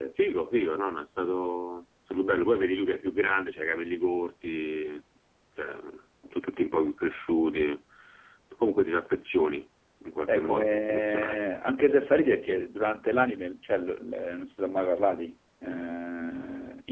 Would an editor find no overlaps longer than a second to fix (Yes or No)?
No